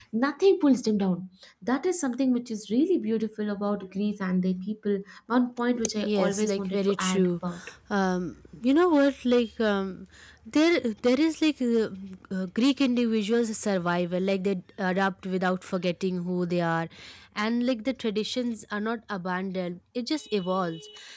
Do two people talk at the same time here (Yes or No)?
Yes